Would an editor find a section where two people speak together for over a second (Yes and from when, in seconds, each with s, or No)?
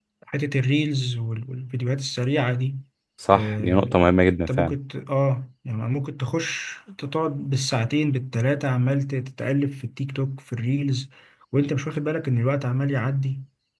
Yes, from 3.3 s